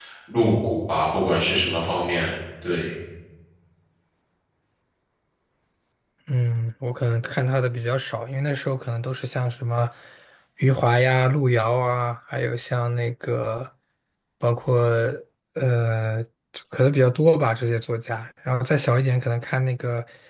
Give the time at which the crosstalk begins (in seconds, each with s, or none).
none